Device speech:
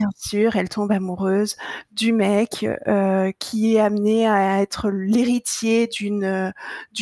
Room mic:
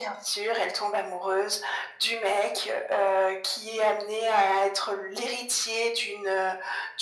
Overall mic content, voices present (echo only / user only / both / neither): echo only